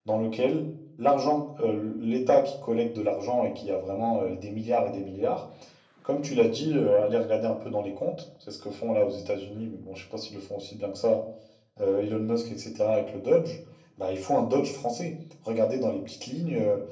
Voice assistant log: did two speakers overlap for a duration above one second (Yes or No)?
No